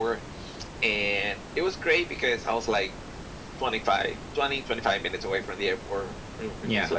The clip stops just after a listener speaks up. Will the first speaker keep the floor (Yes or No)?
Yes